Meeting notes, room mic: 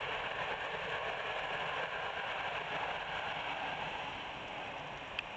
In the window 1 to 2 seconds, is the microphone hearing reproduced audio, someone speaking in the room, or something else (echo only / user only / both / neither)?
neither